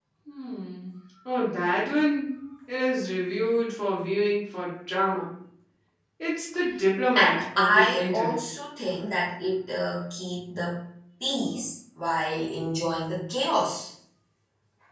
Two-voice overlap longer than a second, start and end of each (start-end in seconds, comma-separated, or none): 7.2-8.4